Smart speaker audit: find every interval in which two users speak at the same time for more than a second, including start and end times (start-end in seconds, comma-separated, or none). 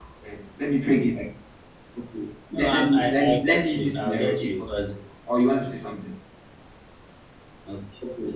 2.5-4.9